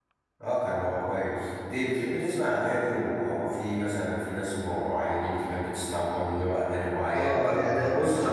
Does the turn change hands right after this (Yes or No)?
Yes